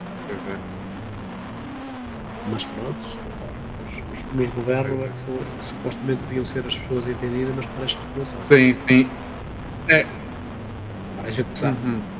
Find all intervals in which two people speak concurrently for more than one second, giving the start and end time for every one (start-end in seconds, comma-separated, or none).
none